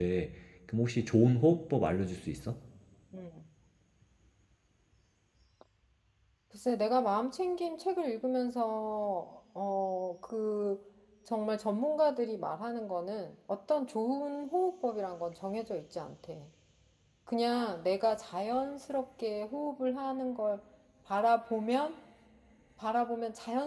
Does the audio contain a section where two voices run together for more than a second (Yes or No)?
No